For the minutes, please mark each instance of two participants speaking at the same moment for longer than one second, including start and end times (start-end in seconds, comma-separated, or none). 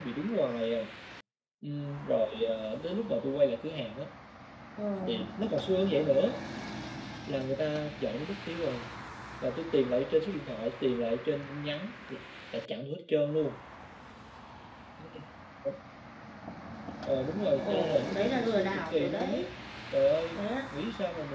17.6-19.4